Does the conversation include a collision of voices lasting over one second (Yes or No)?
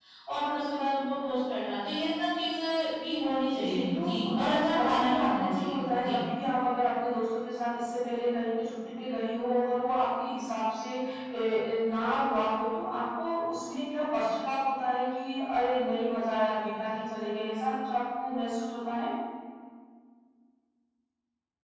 Yes